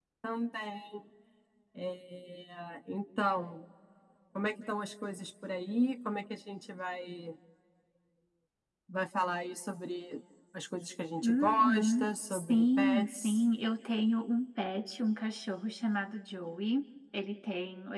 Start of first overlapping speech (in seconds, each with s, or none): 11.2 s